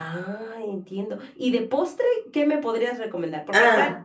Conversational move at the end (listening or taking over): listening